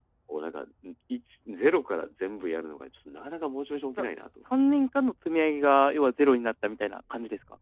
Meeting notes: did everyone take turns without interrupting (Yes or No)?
Yes